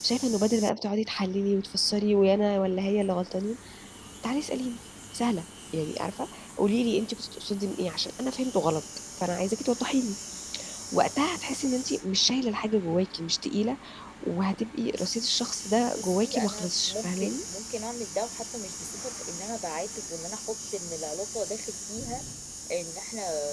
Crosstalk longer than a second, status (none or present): present